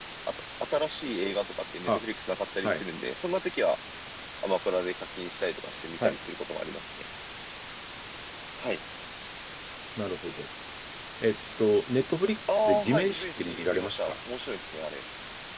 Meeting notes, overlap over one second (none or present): present